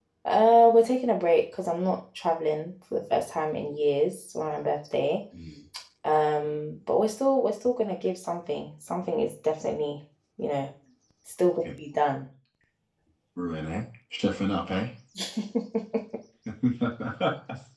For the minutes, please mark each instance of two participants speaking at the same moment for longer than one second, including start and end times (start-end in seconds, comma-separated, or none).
none